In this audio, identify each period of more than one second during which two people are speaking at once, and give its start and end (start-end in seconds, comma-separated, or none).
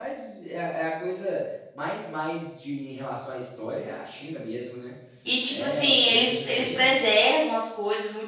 5.5-7.0